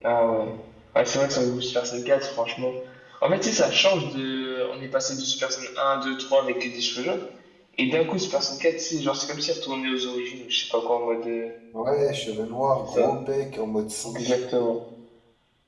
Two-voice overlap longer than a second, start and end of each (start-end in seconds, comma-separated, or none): none